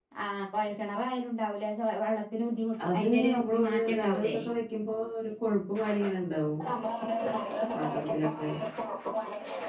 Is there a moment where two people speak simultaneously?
Yes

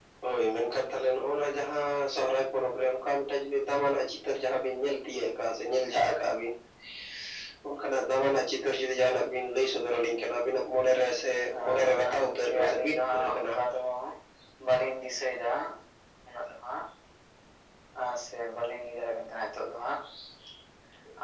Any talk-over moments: Yes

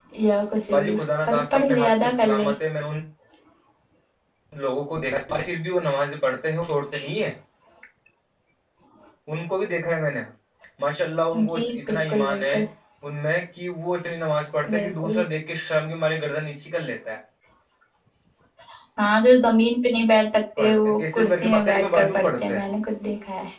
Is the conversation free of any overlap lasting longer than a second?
No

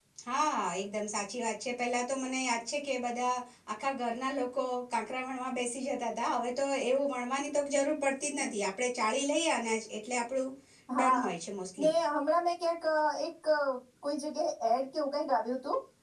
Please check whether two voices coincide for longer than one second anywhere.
No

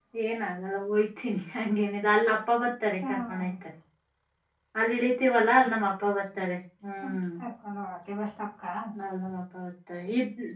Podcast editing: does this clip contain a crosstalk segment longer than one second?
No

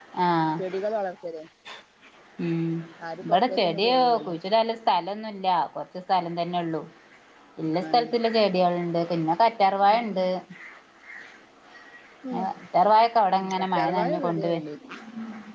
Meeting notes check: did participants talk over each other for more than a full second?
Yes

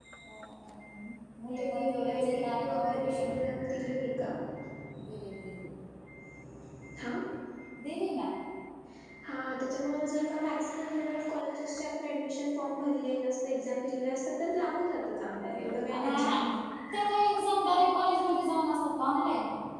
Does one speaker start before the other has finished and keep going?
Yes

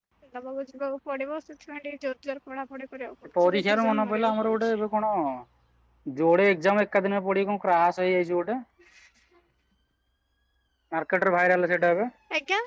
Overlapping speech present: Yes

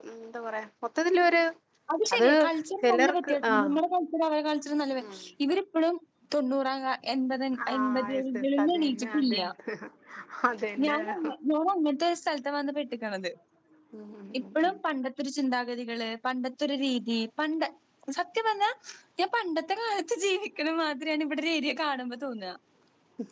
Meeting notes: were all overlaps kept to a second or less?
No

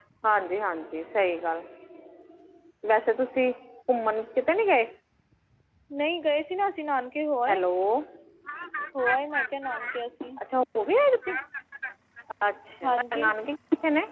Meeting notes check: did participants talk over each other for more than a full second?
No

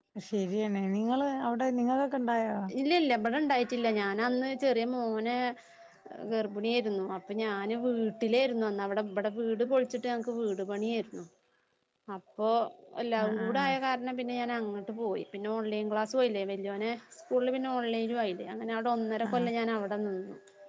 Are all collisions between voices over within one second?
Yes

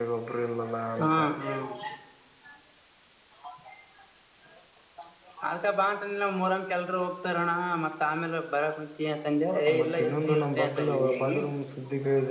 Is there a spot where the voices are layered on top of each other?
Yes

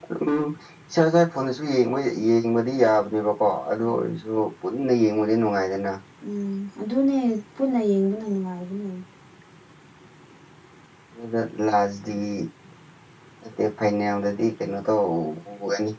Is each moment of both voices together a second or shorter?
Yes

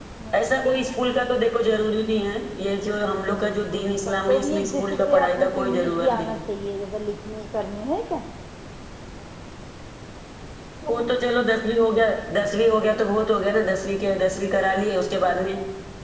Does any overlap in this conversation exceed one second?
Yes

